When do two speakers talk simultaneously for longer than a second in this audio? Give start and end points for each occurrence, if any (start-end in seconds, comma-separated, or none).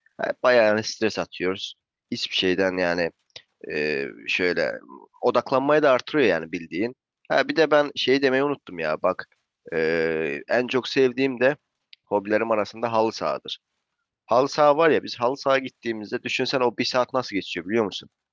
none